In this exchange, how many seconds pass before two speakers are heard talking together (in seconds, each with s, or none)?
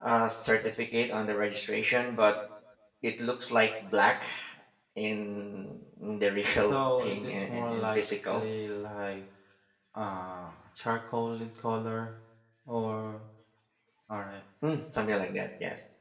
6.7 s